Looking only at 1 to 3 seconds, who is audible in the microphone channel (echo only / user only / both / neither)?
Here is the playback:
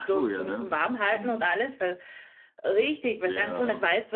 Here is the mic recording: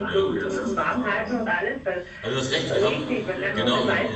both